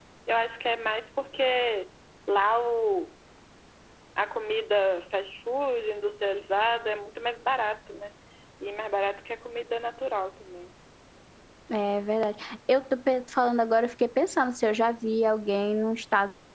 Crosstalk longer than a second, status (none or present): none